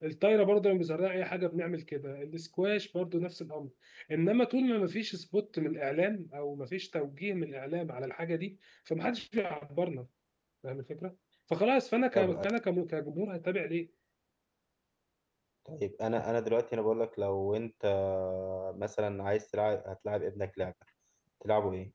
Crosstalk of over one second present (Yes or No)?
No